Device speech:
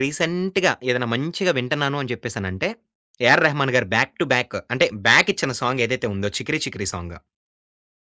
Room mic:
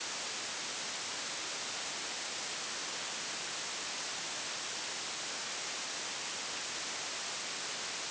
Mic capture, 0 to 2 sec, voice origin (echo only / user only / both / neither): neither